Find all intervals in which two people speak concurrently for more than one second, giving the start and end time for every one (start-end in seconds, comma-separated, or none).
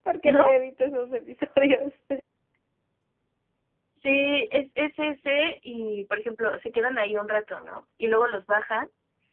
none